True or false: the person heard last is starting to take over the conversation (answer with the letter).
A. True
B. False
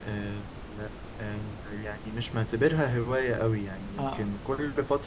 B